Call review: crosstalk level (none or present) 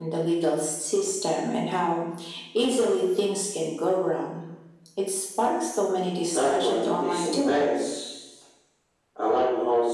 present